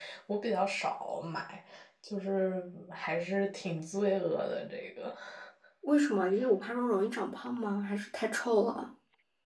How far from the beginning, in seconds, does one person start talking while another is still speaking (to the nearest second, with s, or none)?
none